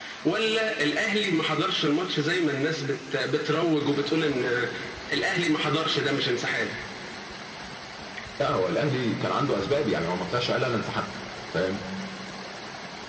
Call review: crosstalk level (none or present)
none